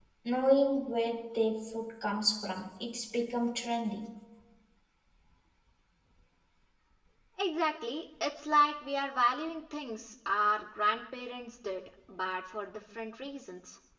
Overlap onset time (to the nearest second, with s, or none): none